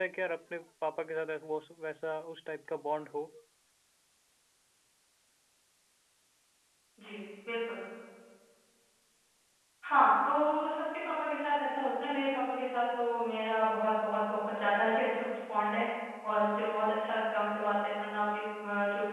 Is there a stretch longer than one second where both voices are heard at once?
No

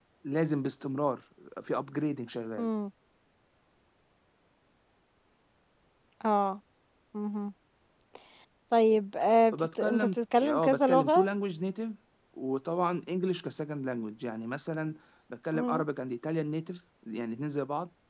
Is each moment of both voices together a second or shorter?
No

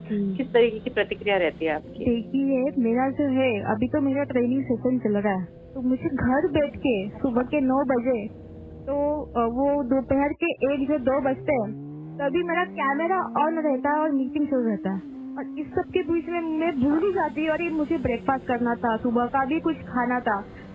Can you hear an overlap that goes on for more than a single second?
No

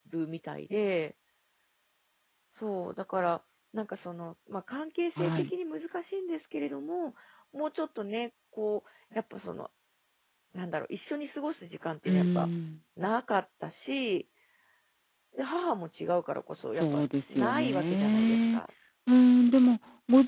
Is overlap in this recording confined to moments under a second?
No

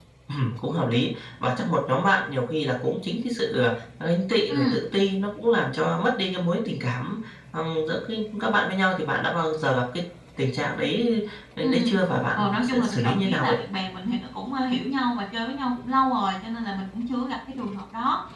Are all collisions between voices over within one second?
No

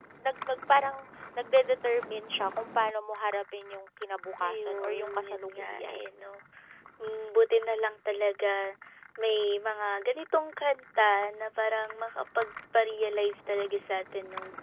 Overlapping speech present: Yes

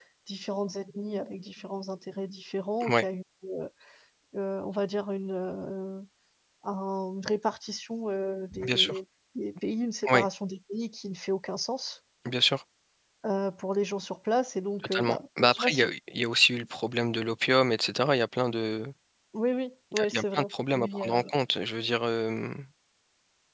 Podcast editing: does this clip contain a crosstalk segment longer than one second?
Yes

